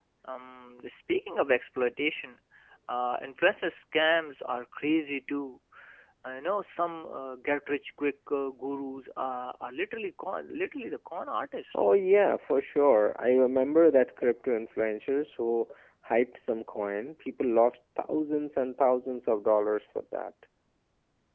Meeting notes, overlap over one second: none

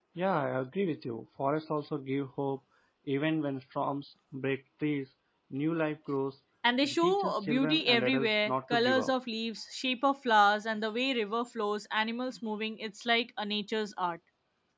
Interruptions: present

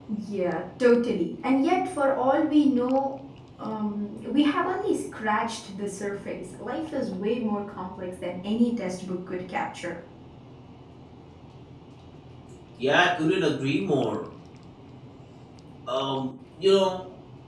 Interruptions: none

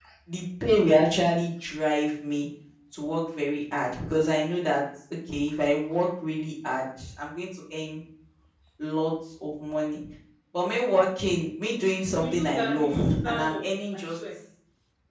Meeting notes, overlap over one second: present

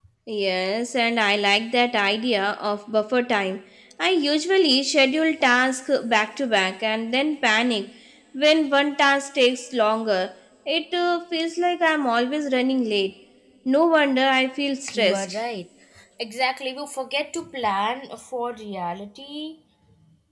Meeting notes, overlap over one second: none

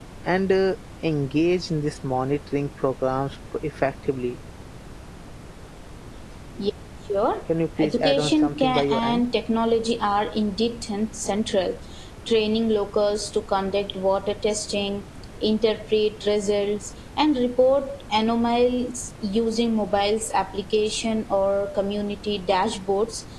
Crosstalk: present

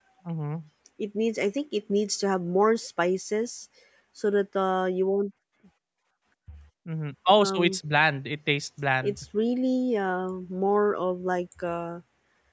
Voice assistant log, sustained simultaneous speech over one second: none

